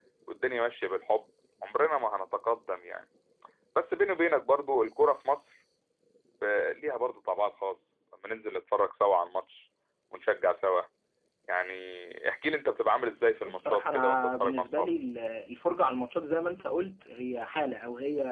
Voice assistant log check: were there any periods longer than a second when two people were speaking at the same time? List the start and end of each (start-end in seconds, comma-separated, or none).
13.4-14.9